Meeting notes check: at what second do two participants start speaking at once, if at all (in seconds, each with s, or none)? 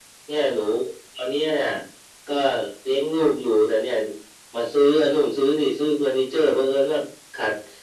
none